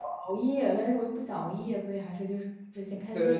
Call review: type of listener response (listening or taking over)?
taking over